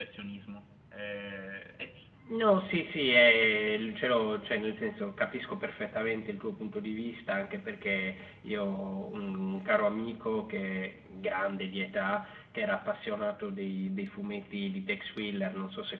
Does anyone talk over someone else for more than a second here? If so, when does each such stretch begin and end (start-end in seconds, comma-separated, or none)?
none